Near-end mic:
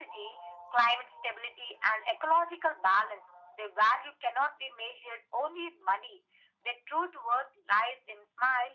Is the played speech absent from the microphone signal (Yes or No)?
No